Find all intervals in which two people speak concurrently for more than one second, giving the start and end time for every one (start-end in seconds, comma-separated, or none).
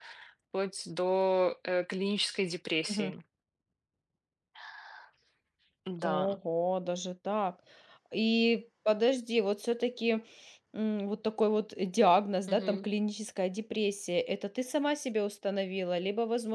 none